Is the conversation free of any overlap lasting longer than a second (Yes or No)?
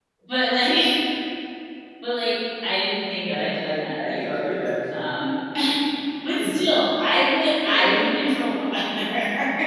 No